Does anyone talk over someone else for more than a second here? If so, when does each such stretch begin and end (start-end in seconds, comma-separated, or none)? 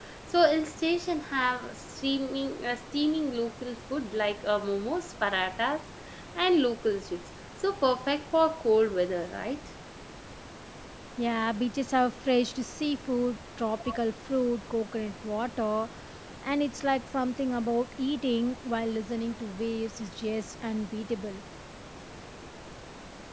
none